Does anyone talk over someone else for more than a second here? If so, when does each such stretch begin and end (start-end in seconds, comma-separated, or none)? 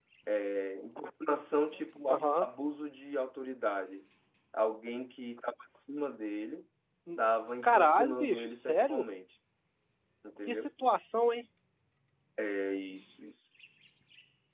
7.6-9.1